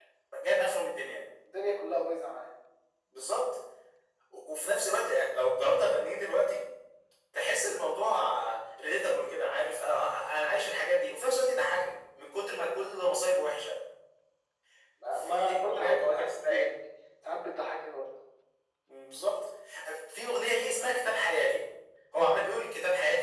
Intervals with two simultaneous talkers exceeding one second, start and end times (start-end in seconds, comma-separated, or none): 15.1-16.7